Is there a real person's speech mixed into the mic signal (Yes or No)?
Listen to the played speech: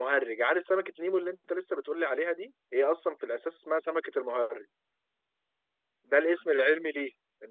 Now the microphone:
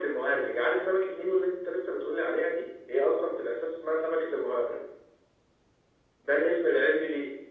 No